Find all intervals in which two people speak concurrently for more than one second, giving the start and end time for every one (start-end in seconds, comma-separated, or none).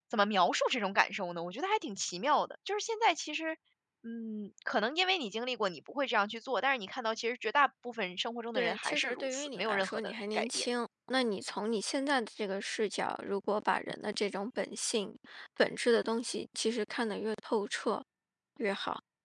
8.5-10.7